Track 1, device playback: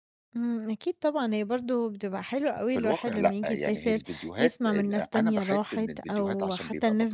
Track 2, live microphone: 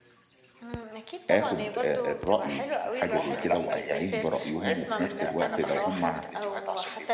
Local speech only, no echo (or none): آخُد آآ الرأي في حاجة زي كده وأستعين برأيهم، وفي نفس الوقت لو هم